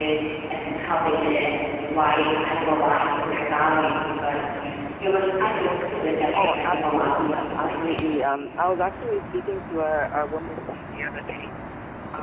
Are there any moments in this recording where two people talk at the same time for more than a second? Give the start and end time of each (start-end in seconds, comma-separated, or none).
6.3-8.1